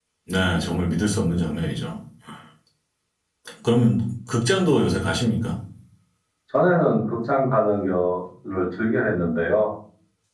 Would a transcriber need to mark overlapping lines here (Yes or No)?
No